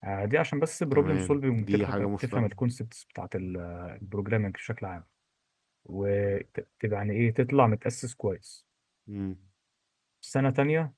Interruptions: present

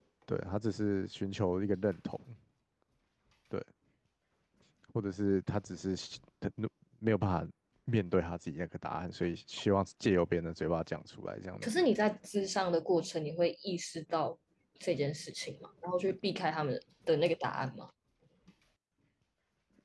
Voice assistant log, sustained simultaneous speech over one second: none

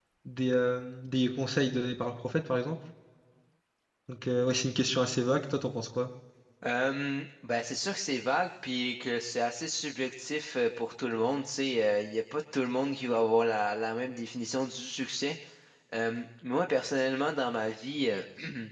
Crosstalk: none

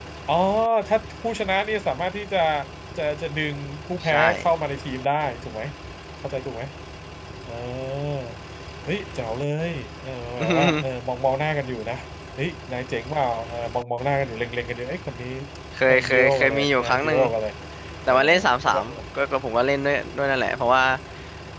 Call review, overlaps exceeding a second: present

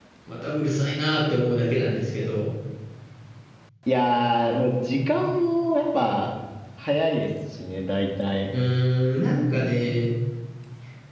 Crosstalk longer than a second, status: none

